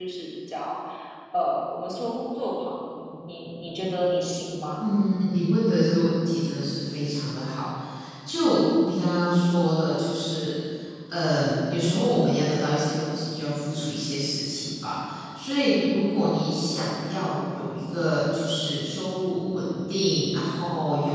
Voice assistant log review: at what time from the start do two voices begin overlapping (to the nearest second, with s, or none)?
none